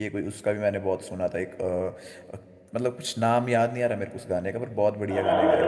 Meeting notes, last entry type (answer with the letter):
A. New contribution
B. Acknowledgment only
A